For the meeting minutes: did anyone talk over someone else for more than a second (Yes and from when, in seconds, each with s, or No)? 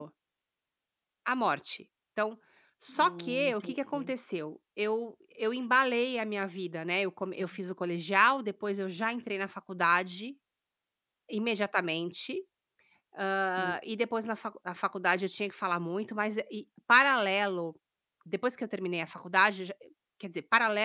Yes, from 2.9 s